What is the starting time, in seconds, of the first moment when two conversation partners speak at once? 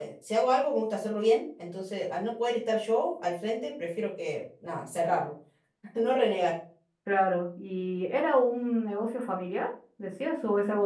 none

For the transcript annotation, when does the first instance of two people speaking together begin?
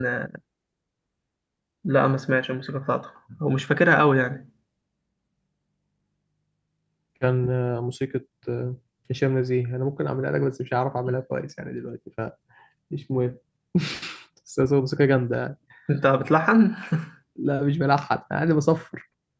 none

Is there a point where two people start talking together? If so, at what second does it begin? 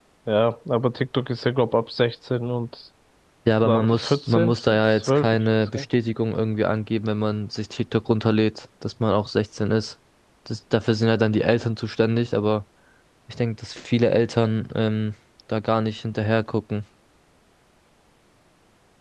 3.6 s

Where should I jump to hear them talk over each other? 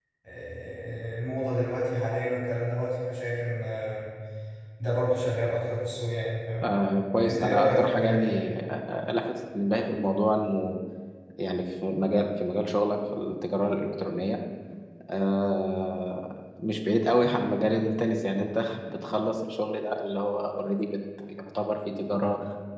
7.2 s

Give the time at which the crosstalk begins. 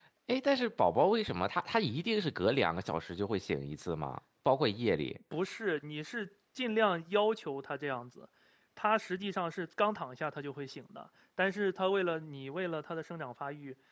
none

